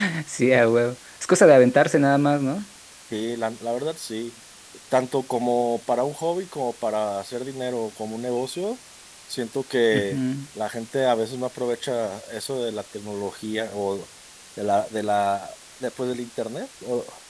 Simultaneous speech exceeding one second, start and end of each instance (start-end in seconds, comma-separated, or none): none